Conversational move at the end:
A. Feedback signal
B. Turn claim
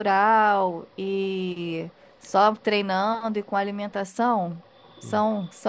A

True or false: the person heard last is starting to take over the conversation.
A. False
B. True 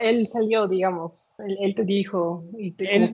B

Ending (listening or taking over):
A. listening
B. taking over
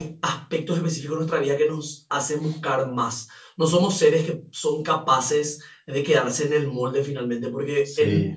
A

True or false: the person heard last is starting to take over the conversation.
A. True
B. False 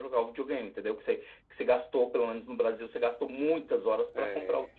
B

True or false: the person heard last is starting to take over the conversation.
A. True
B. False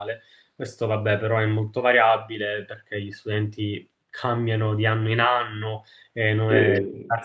B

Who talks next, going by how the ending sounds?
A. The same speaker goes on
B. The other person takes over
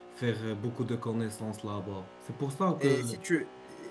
B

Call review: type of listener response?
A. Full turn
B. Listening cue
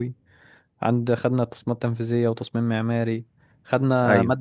B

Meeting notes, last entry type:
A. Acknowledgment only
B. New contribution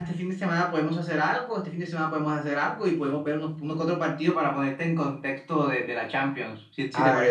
B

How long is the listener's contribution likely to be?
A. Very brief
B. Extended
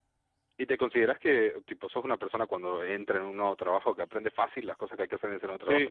B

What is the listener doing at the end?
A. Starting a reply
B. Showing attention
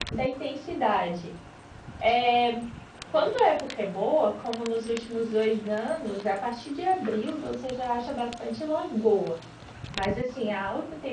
B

